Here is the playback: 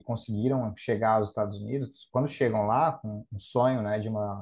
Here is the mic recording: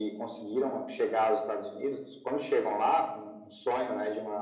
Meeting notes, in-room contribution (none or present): none